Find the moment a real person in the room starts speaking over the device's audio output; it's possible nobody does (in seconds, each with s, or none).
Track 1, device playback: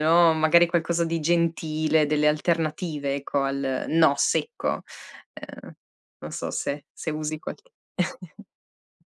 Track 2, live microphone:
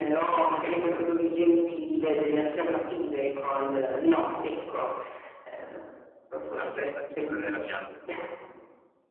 6.5 s